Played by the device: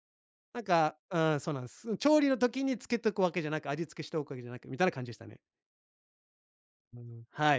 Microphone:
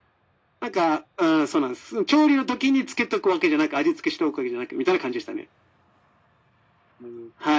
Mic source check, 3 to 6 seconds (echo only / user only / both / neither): echo only